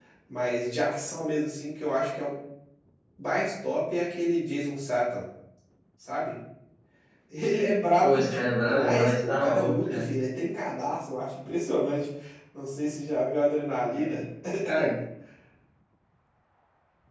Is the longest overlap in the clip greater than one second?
Yes, from 8.0 s

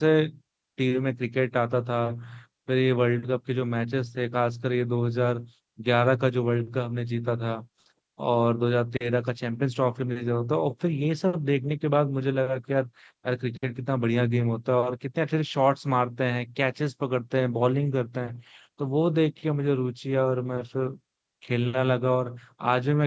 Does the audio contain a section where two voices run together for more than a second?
No

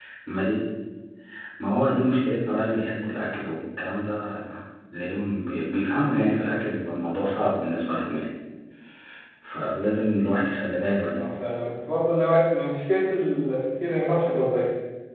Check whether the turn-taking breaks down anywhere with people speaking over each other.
No

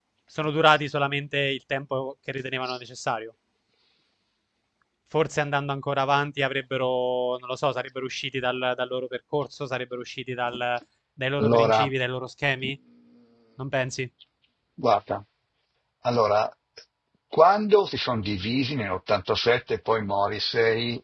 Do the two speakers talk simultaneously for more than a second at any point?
No

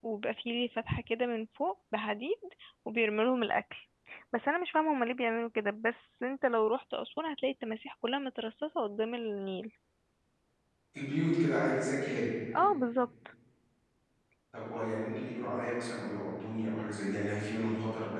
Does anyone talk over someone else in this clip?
No

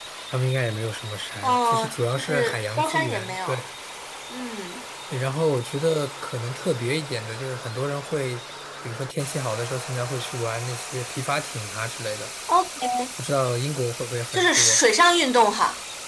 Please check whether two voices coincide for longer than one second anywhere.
Yes, from 1.4 s

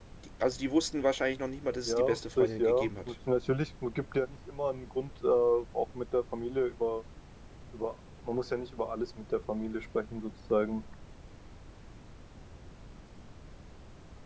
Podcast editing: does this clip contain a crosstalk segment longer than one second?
Yes, from 1.9 s

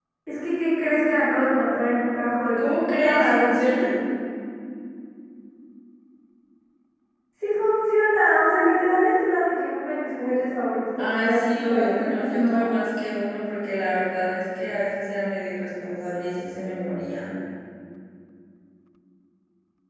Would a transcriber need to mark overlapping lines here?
Yes, from 2.6 s

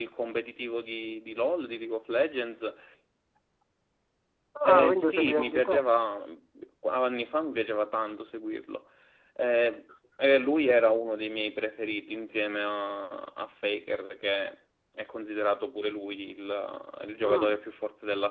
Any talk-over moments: Yes, from 4.6 s

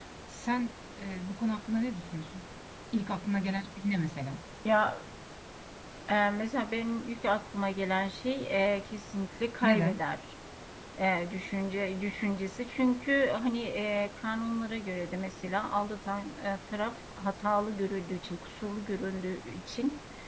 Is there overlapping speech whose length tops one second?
No

